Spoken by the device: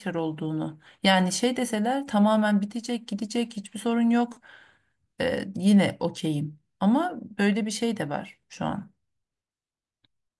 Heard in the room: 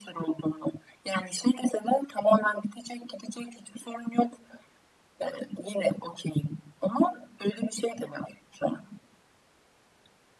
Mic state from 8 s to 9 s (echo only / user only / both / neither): echo only